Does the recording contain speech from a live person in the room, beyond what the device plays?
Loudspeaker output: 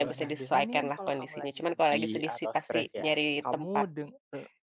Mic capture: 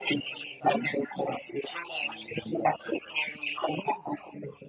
No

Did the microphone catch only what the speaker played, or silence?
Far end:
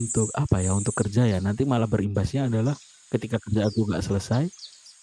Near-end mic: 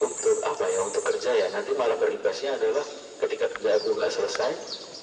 Yes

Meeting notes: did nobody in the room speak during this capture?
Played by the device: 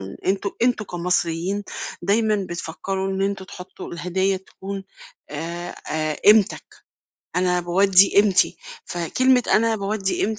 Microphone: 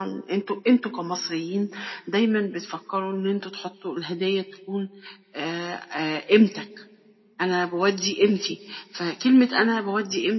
Yes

